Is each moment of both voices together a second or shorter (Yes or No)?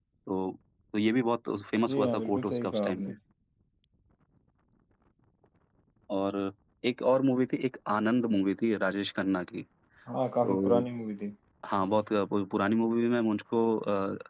No